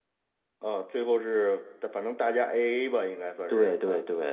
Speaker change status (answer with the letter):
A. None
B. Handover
B